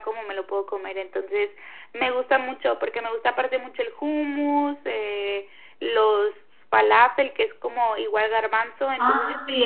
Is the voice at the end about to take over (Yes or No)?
Yes